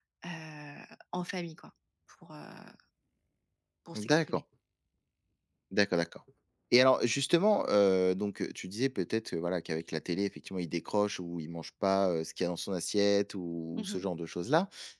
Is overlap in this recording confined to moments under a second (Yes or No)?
Yes